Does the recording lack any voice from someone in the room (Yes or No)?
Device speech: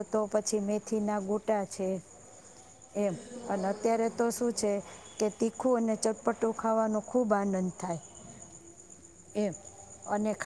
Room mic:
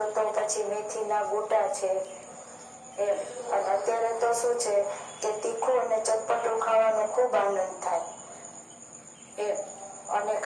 Yes